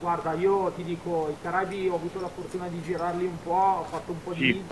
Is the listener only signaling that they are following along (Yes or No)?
Yes